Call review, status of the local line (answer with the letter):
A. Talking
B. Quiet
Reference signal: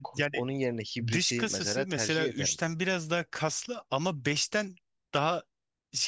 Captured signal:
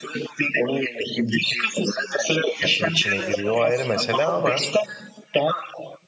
A